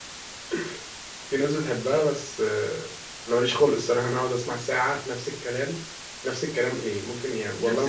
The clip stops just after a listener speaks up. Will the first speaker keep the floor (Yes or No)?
Yes